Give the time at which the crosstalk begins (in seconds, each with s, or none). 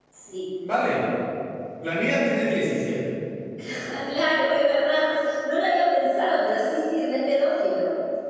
none